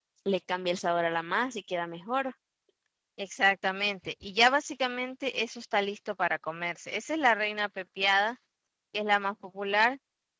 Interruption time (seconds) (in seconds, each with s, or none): none